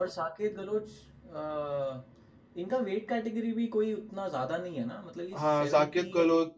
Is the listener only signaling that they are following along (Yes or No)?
No